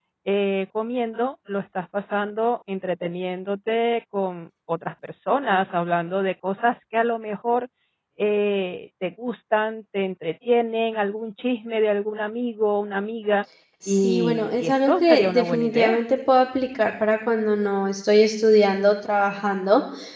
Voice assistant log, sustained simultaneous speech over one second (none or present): present